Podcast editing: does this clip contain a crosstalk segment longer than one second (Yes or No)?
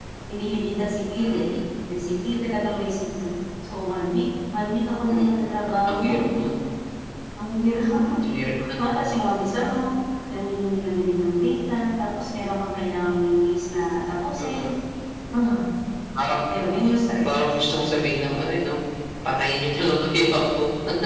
No